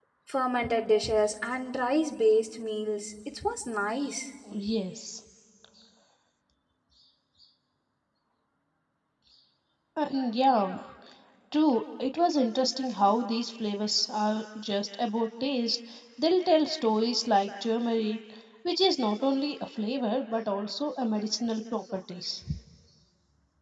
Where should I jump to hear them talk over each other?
none

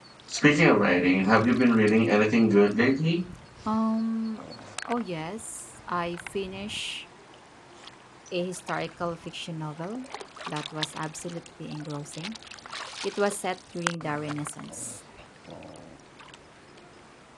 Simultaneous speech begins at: none

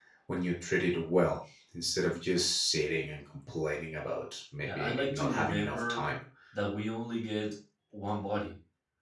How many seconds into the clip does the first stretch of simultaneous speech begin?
5 s

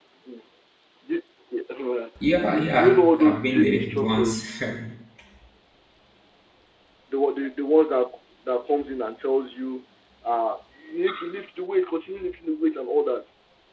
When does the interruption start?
2 s

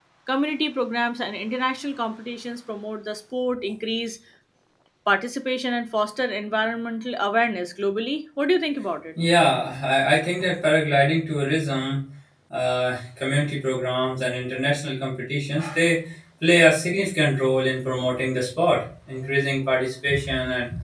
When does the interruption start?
none

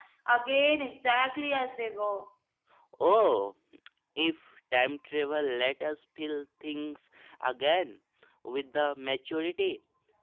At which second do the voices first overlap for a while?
none

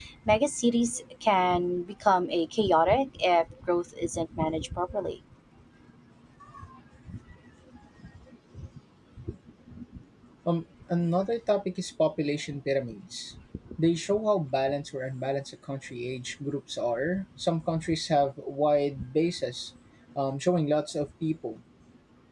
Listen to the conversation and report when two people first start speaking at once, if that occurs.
none

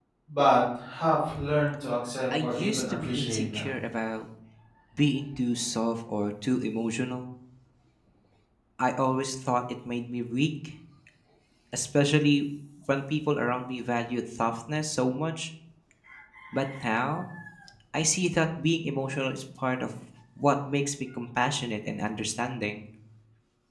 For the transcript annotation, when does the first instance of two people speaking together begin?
2 s

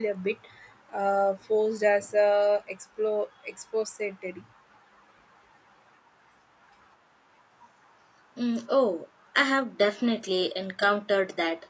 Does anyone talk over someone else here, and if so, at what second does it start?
none

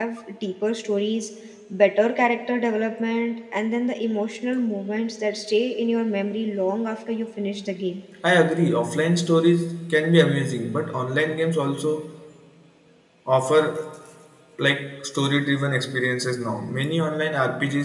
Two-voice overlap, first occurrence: none

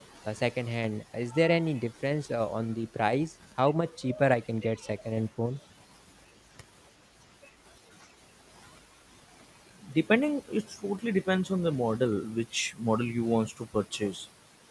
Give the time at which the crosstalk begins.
none

